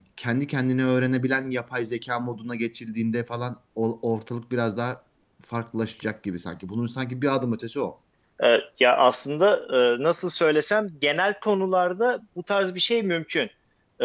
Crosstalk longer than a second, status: none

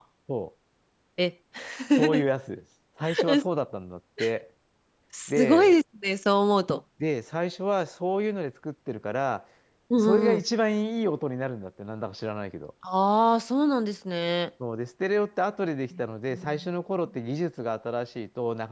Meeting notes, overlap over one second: none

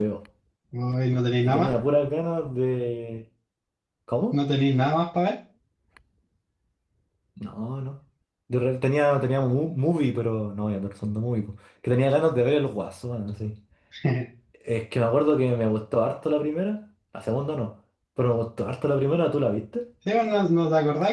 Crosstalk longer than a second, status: none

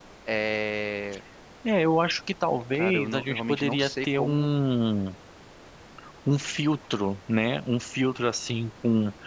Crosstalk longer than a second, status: present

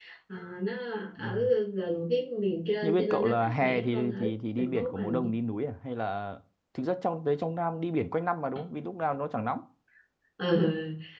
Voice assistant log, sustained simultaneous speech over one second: present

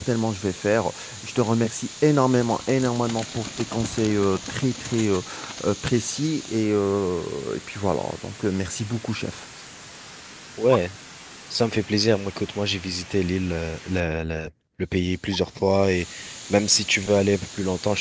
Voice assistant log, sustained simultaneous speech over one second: none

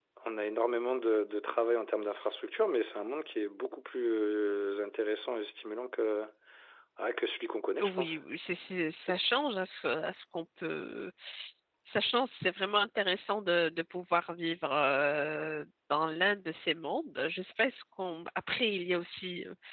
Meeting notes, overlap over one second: none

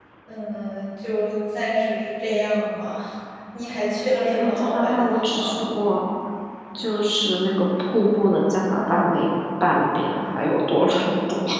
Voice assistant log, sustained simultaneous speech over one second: present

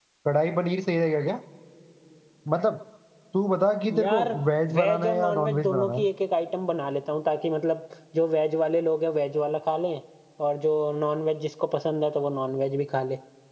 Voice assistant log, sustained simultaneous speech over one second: present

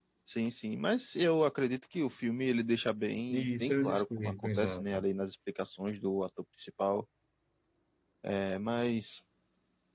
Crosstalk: present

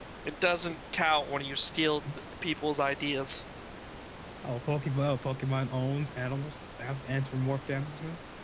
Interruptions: none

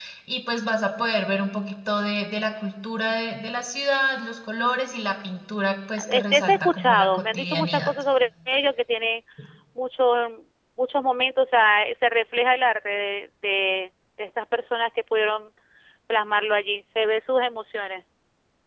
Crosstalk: present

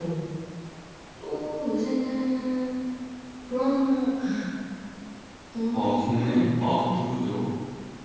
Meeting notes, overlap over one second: present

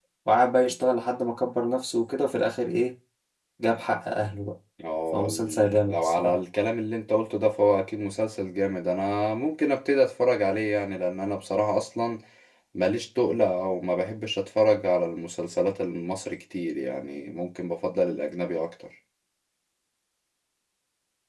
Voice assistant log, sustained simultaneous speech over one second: present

